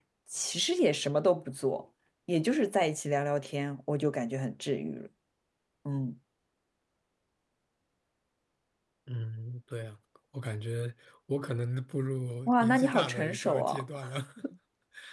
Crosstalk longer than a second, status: present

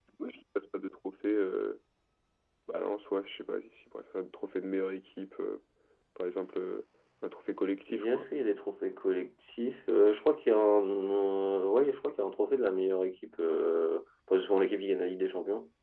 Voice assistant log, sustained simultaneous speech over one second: none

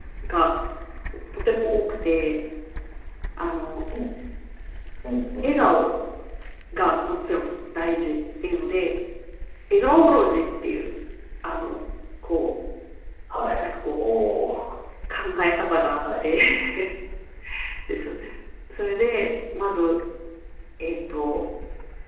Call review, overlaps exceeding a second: none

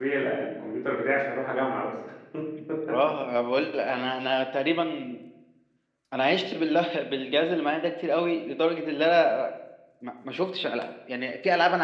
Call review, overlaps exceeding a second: none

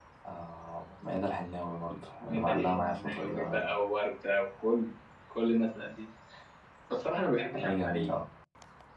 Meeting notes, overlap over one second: present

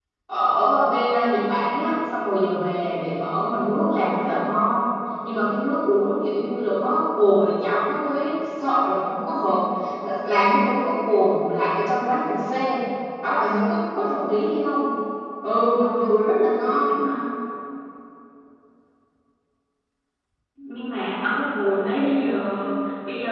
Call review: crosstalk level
none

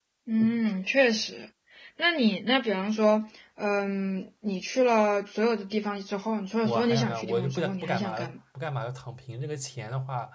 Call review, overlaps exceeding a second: present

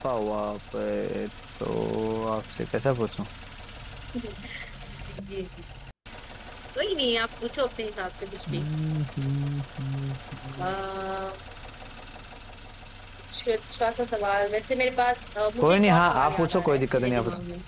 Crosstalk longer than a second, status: present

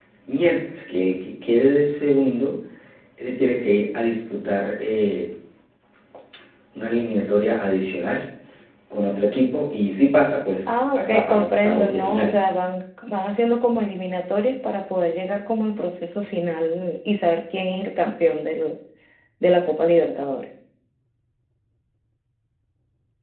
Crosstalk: present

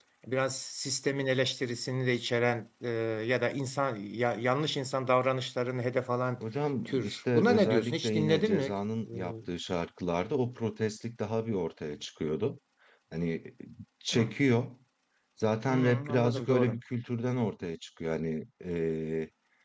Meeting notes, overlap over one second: present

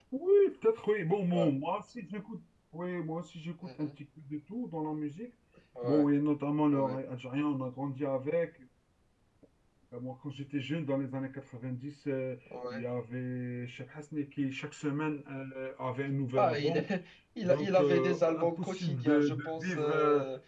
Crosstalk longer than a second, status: present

